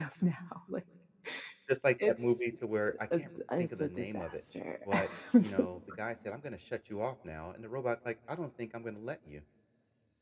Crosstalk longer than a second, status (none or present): present